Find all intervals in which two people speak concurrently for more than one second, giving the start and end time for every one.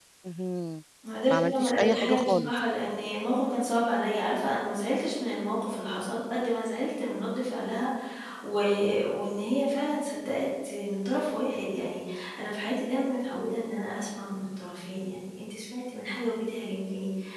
1.3-2.5

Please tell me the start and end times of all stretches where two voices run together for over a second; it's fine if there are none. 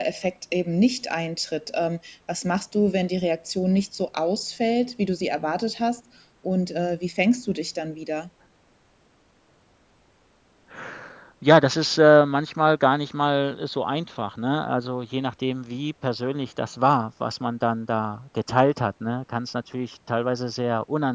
none

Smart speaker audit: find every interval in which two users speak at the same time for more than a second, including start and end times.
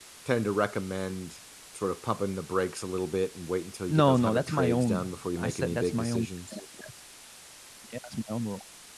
3.9-6.2

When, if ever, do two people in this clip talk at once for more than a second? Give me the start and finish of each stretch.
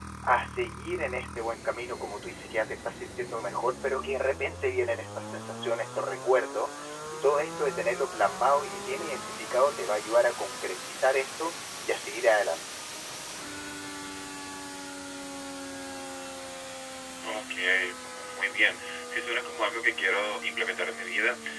none

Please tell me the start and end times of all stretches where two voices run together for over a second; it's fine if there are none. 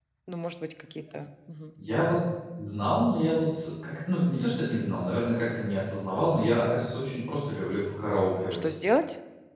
none

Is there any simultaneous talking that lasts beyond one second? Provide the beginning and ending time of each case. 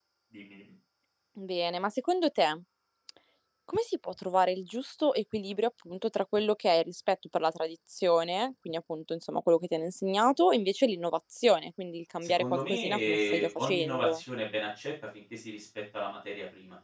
12.2-14.2

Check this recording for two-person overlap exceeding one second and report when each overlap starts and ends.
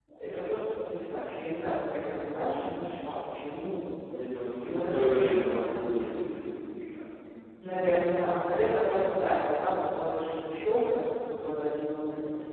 4.6-6.2

